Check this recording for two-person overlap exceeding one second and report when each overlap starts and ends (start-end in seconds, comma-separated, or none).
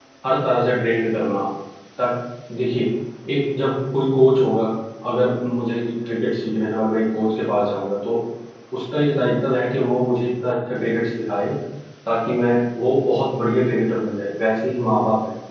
none